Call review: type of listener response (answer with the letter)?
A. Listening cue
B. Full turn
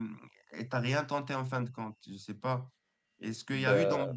A